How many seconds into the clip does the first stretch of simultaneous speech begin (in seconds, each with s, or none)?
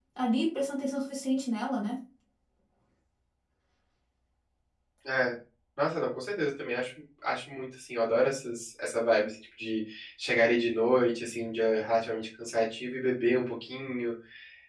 none